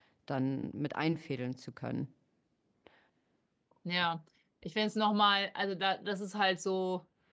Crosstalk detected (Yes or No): No